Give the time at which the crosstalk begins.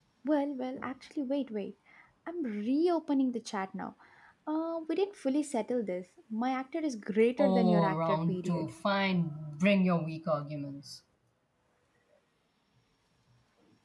7.4 s

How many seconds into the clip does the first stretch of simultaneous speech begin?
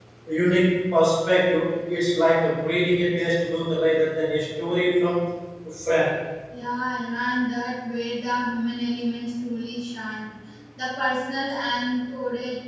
none

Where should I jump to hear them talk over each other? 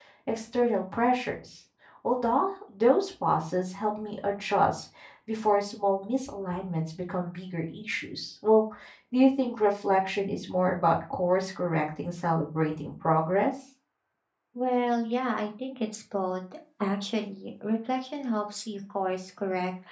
none

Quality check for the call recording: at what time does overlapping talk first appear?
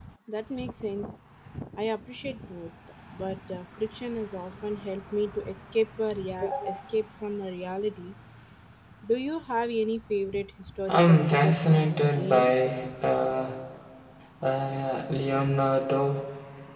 10.9 s

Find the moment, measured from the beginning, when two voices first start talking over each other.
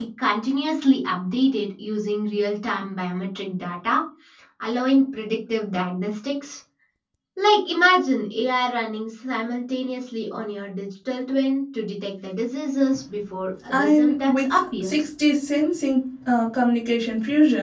13.7 s

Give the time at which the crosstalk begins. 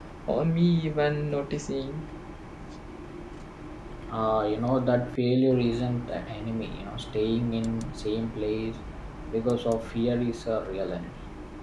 none

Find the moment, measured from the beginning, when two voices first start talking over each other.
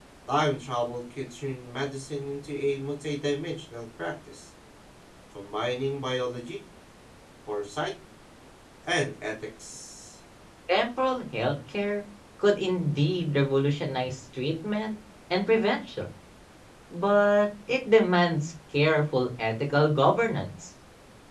none

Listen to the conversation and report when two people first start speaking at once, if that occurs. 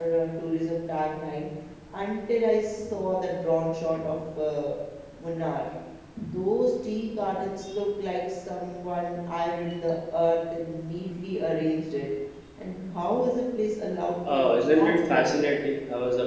14.2 s

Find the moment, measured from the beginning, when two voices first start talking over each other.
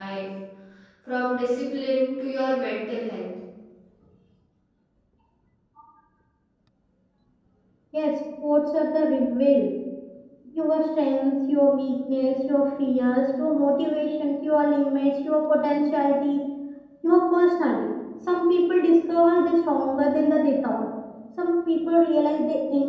none

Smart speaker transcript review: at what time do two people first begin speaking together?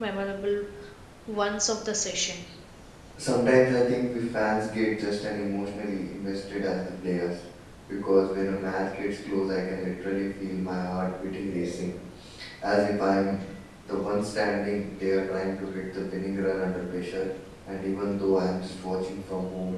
none

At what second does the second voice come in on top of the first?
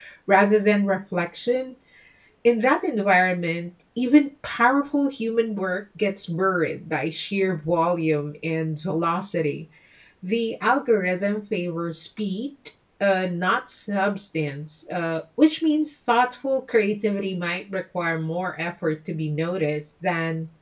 none

